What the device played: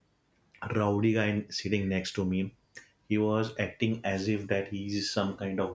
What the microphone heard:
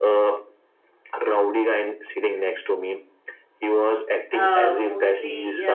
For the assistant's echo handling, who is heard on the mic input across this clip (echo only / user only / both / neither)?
both